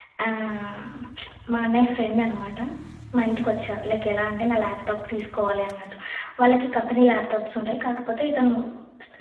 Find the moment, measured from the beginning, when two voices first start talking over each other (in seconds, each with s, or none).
none